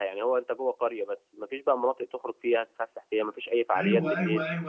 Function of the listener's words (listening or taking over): taking over